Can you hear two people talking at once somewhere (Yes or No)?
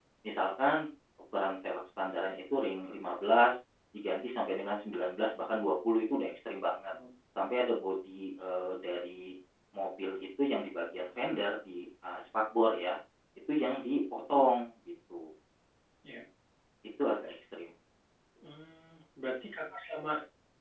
No